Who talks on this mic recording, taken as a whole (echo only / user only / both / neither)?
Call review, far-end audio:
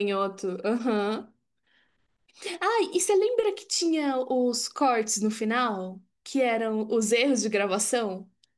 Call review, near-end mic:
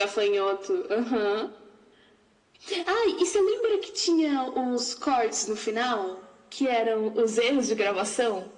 echo only